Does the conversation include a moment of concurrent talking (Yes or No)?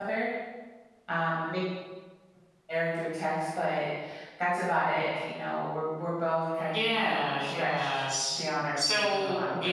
Yes